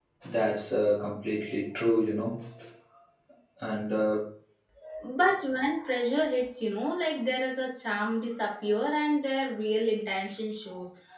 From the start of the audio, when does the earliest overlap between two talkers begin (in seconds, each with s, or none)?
none